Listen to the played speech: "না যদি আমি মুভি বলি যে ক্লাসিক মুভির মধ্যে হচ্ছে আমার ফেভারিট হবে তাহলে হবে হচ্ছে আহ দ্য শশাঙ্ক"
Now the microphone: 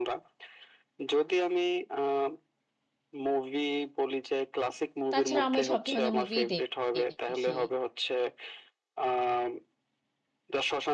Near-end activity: present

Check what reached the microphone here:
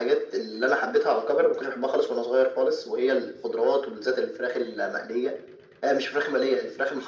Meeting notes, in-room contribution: none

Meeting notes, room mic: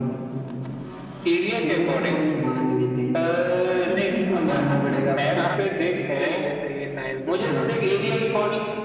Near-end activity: present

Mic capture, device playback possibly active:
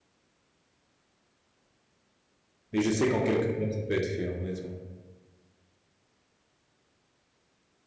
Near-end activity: present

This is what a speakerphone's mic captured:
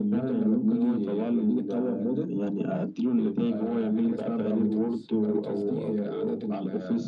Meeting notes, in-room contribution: none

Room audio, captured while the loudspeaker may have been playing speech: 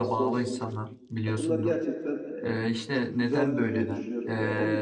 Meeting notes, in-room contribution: present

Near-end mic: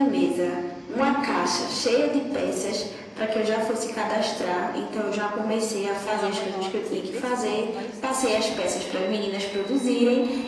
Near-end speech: present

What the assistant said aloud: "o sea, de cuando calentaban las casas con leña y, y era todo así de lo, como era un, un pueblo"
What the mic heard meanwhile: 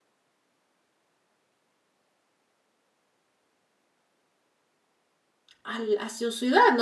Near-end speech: present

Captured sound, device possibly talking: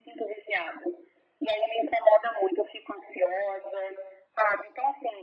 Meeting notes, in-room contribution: none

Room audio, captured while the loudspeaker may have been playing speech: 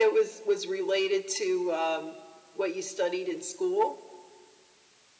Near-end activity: none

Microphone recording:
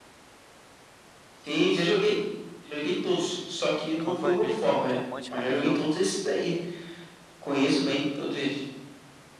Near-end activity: present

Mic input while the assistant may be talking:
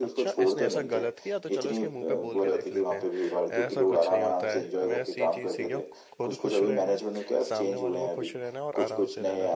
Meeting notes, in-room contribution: present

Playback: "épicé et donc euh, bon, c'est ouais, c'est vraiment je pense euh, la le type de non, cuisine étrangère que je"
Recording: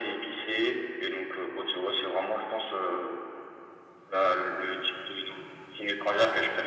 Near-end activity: none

